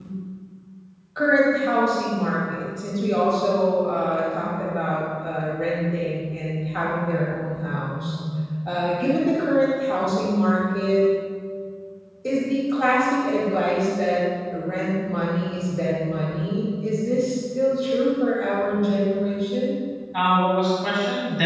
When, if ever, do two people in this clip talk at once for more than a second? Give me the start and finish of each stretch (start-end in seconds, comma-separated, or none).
none